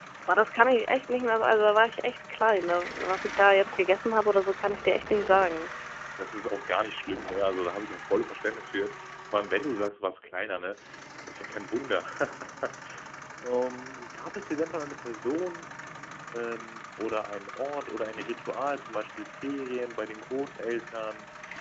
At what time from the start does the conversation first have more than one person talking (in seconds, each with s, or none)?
none